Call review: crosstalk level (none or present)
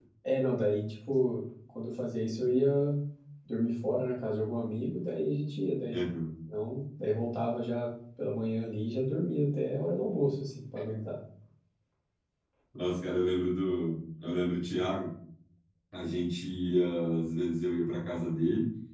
none